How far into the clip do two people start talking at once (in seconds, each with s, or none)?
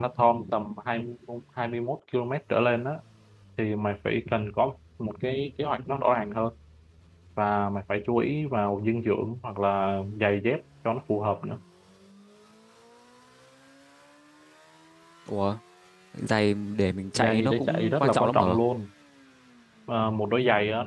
17.2 s